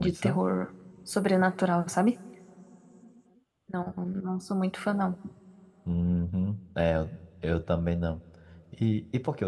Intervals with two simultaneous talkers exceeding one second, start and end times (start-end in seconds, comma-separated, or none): none